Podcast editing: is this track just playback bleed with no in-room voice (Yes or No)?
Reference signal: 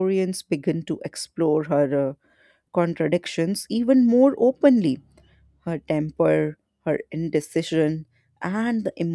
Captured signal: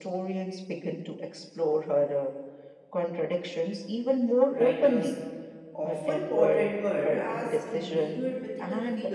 No